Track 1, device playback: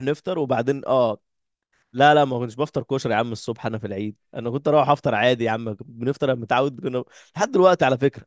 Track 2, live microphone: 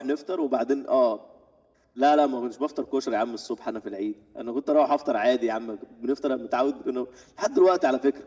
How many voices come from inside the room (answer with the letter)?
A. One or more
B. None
B